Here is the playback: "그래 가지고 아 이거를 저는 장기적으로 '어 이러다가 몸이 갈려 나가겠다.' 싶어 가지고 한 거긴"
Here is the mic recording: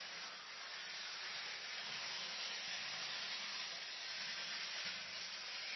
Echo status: none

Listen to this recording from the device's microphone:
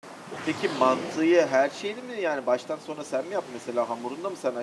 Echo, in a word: none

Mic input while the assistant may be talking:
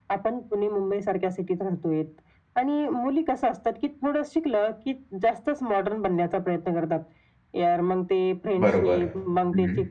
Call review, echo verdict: present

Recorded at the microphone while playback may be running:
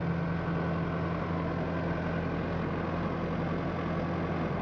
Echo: none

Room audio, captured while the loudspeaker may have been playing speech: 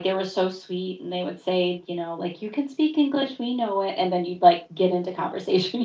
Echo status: present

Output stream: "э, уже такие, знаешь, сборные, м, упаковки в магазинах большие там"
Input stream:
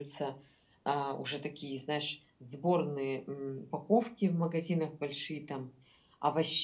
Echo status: present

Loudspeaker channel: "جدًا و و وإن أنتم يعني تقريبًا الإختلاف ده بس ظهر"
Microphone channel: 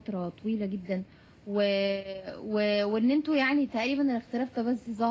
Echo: present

